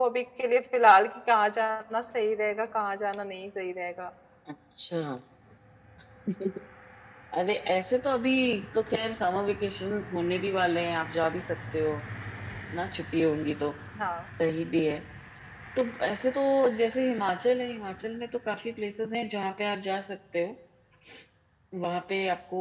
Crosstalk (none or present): none